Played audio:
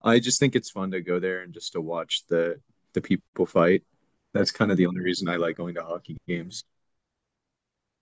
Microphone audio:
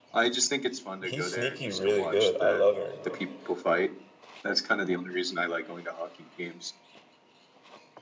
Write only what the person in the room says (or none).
he's sneaky really good. I love Aaron Gordon.